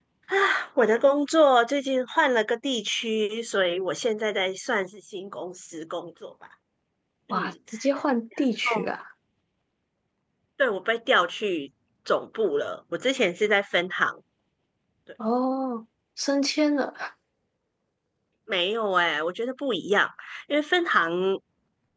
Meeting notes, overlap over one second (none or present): none